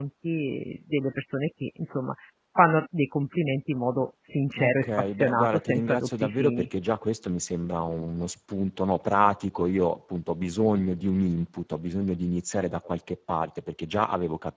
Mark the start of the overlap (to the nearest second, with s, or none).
5 s